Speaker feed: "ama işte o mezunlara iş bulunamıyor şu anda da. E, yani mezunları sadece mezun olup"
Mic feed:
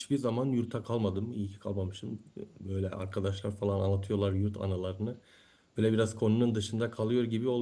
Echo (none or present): none